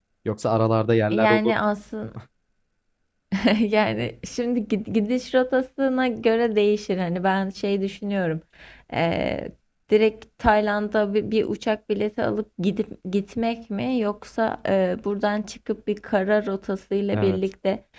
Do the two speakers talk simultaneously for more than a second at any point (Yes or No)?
No